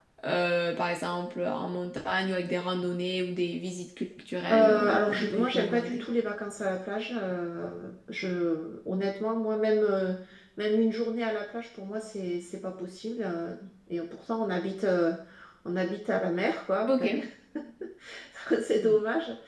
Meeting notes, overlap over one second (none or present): present